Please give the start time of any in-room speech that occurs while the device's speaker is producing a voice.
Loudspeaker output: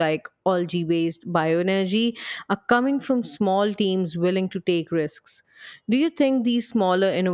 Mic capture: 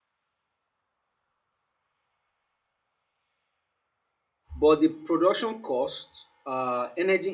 4.6 s

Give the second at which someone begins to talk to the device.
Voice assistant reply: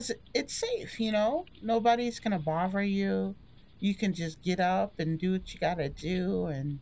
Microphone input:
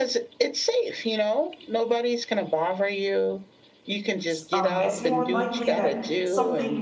4.2 s

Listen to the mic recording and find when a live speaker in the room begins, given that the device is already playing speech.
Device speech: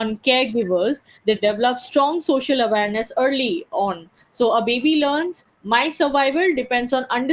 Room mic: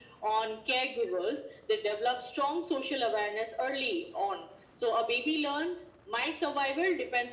none

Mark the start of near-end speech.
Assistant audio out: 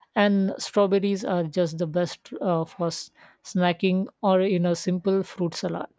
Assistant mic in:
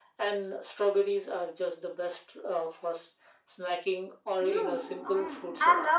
4.4 s

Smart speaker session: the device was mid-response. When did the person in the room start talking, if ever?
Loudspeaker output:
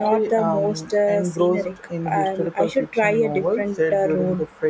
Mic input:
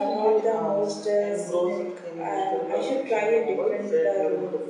none

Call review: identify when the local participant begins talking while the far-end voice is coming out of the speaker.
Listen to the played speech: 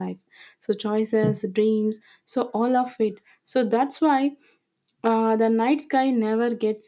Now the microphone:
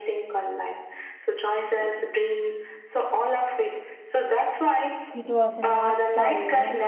5.1 s

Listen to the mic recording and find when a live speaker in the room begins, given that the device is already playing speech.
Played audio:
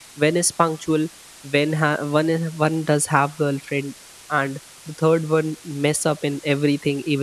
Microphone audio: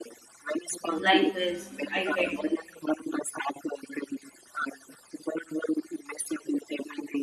1.0 s

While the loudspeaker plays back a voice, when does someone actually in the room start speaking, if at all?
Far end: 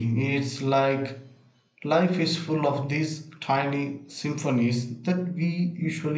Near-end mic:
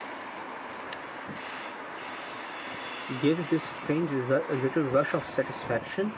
3.2 s

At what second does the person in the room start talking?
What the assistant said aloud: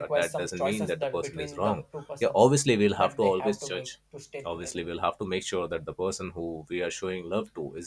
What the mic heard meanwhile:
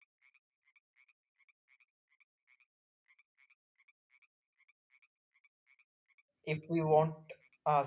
6.4 s

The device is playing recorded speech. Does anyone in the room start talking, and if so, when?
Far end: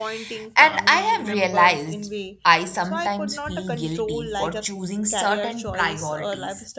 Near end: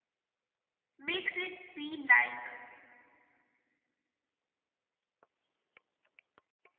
1.0 s

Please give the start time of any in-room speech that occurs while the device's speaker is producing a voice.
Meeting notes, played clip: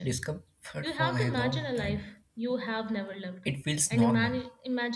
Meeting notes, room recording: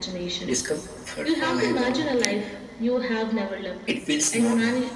none

